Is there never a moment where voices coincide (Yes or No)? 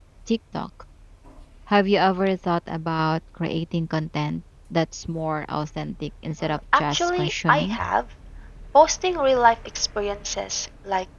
No